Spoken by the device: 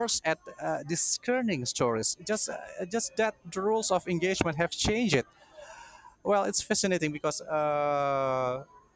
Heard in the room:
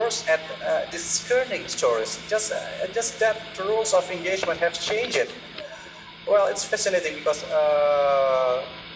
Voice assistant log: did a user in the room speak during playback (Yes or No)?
No